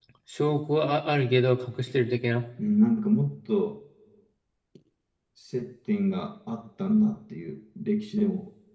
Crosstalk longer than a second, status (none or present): none